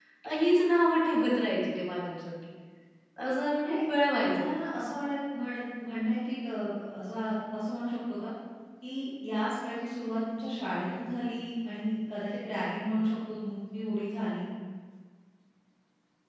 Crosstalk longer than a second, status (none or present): none